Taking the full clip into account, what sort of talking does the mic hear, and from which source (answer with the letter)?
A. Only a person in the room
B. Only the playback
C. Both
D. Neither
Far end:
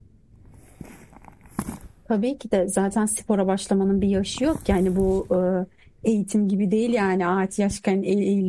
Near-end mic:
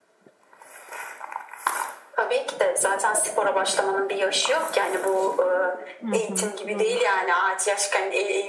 C